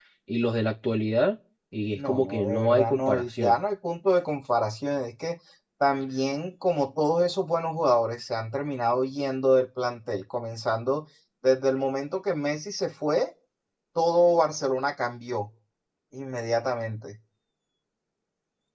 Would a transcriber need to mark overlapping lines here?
Yes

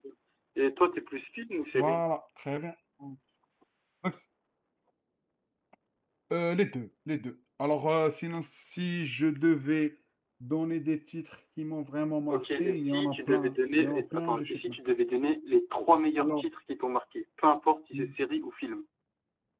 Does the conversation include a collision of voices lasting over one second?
Yes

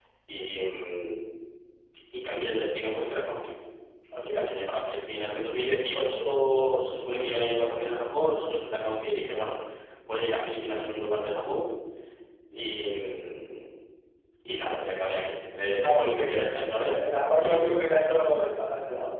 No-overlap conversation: No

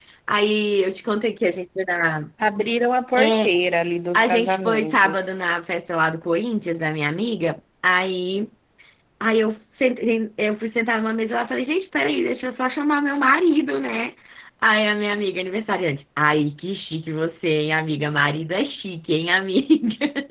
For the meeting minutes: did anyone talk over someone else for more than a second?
Yes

